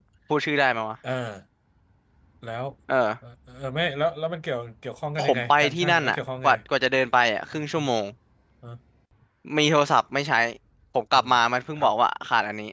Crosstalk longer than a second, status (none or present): present